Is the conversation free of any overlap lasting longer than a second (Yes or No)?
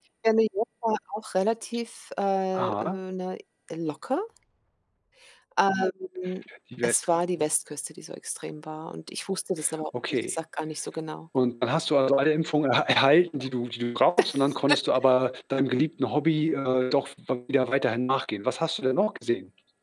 Yes